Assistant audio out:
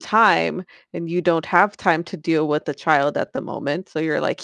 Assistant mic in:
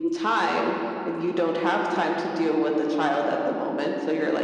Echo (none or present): present